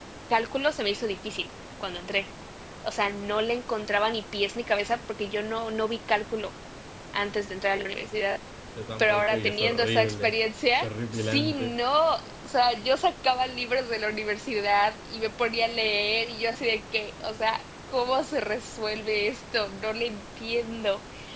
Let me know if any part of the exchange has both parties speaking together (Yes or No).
Yes